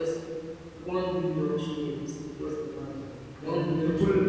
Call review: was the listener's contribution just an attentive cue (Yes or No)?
No